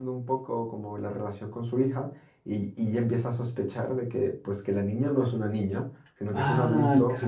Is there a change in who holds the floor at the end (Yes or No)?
Yes